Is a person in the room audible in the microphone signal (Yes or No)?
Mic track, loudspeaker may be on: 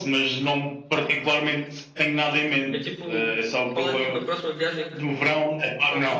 Yes